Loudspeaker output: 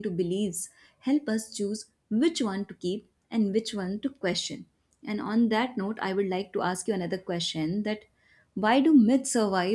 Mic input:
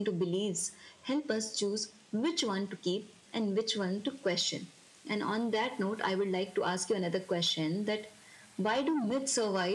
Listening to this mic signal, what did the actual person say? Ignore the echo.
none

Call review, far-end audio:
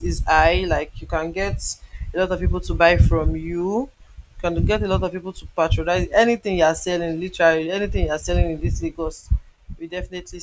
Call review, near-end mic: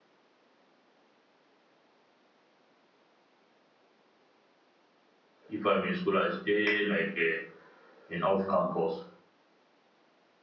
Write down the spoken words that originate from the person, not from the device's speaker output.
if I'm in school, I stay like uh, in off campus

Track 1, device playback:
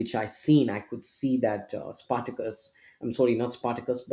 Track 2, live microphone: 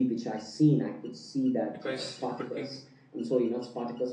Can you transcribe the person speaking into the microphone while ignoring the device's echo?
because it could be

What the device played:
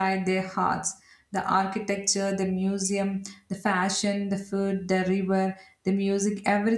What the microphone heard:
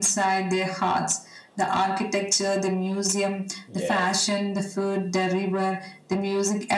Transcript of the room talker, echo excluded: Yes.

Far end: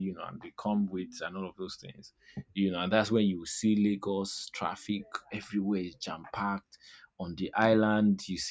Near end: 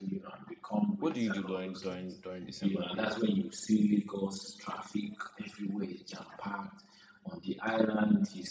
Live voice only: what do you do during during during December period?

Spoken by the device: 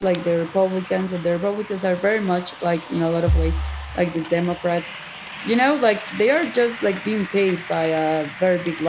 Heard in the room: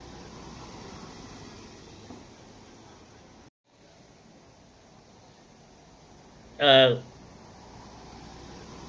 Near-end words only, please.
Uh,

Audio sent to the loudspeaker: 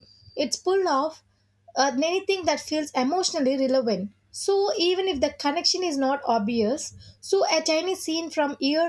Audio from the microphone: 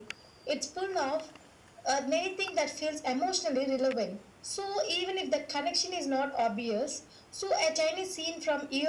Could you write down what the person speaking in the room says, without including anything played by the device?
none

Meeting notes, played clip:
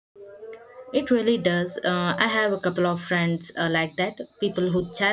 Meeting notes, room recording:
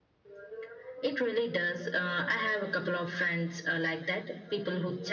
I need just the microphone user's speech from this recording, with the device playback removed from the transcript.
none

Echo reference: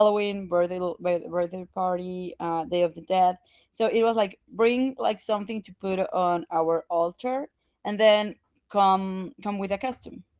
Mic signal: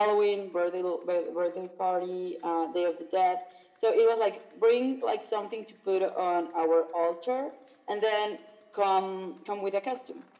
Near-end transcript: none

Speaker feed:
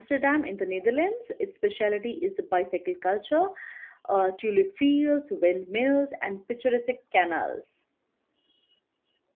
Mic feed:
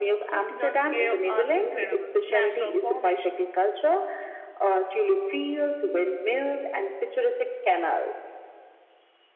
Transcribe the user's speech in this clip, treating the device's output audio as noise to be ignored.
Sokjan Cave are incredible natural formations.

